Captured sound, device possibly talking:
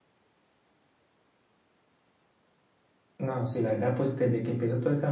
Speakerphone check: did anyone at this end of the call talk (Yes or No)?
Yes